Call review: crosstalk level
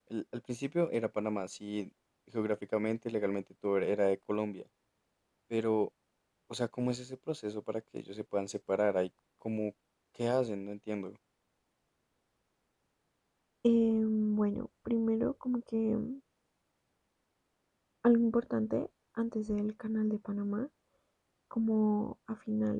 none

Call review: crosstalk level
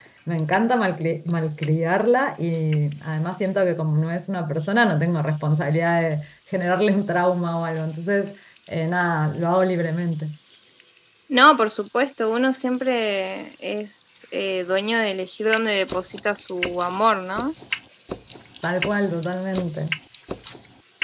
none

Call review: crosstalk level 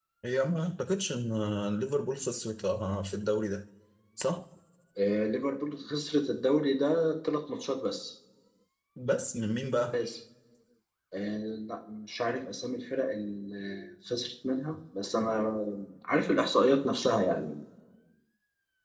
none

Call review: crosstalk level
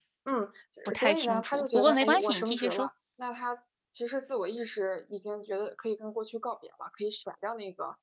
present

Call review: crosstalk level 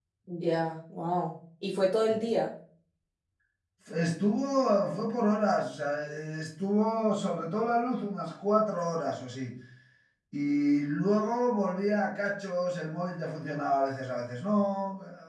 none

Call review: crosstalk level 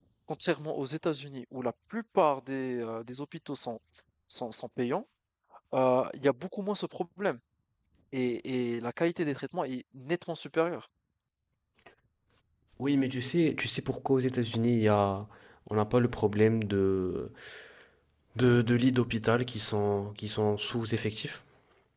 none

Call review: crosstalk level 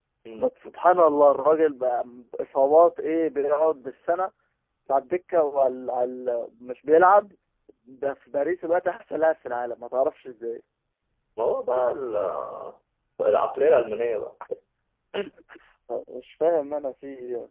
none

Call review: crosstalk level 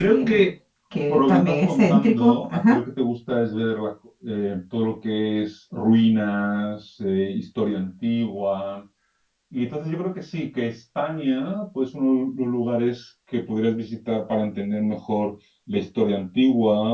present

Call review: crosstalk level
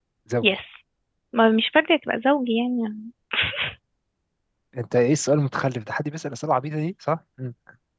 none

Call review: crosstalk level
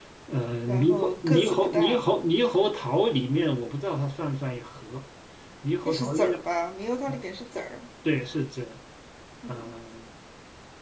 present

